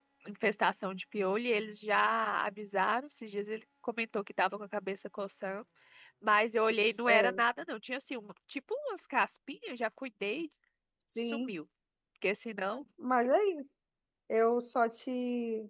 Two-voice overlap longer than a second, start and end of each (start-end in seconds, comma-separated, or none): none